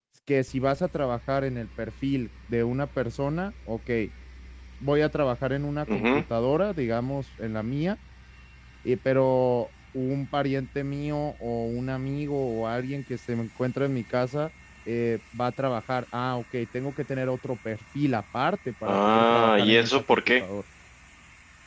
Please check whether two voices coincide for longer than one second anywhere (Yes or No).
Yes